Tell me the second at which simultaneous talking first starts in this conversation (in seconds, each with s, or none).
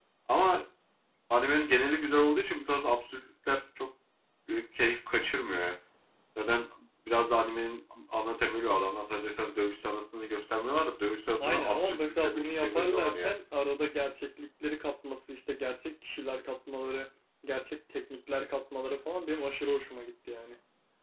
11.4 s